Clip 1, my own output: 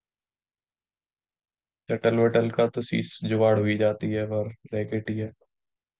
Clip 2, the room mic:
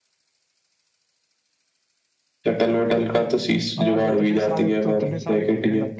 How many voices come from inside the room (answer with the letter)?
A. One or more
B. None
A